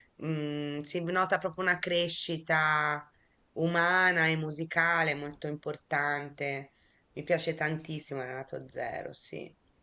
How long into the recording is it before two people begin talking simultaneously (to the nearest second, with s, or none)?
none